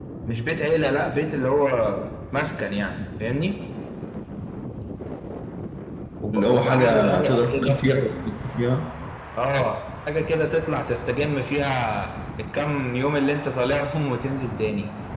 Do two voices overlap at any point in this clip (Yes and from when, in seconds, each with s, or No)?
Yes, from 6.3 s